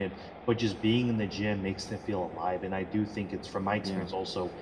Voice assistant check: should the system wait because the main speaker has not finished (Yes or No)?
Yes